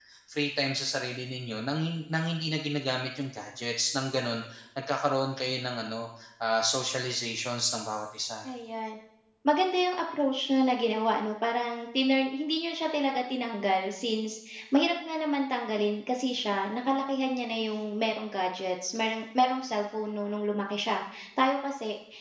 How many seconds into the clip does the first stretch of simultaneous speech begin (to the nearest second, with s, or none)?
none